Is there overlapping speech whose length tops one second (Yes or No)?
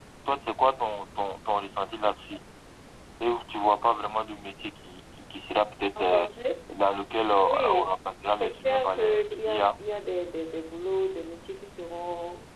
Yes